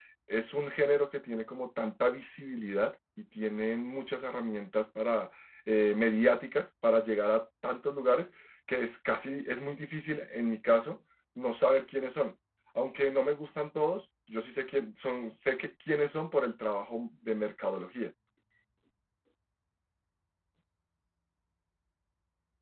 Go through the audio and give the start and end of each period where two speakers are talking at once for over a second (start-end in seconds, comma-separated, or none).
none